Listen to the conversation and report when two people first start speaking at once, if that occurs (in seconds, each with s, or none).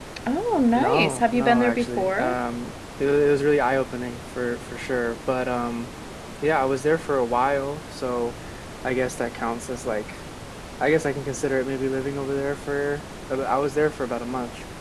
0.8 s